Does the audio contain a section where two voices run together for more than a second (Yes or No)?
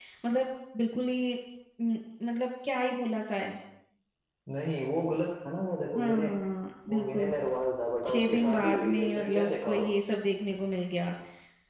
Yes